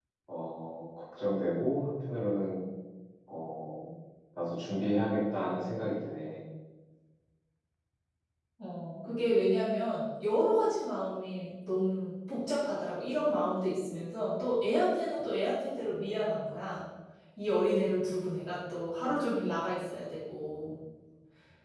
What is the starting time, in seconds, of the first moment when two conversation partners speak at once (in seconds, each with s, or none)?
none